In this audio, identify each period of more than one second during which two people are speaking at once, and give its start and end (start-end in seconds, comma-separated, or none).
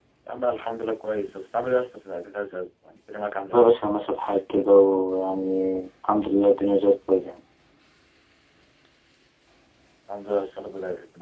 none